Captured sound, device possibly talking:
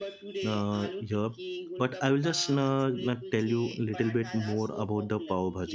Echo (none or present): present